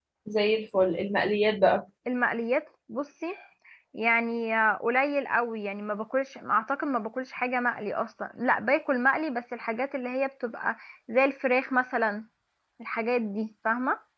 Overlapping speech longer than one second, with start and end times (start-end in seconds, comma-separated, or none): none